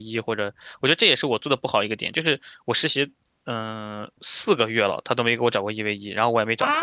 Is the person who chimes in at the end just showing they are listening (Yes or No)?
No